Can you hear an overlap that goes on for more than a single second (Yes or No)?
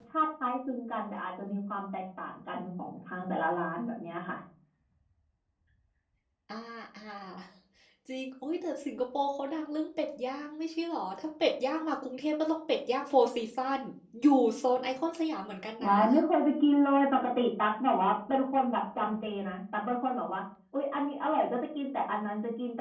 No